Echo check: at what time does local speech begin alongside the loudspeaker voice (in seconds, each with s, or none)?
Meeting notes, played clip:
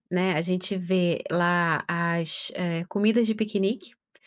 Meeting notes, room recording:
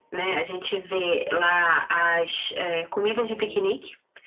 3.2 s